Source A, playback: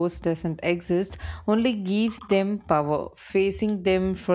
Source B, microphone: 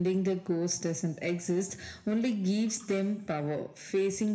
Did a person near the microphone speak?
No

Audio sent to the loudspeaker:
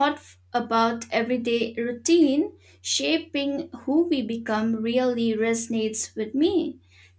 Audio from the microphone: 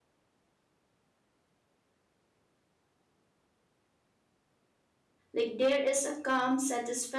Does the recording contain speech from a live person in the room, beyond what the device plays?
Yes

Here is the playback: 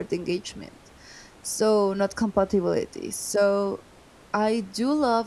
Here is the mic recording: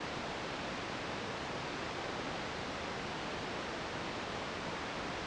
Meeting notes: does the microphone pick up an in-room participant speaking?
No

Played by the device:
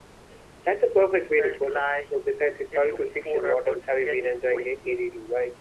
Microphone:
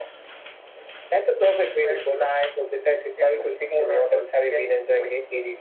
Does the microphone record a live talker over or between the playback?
No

